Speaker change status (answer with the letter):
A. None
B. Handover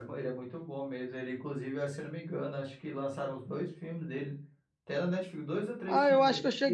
B